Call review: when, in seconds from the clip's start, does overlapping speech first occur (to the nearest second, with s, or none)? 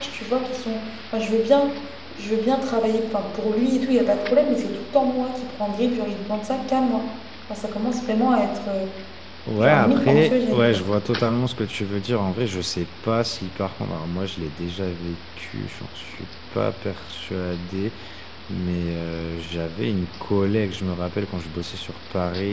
10 s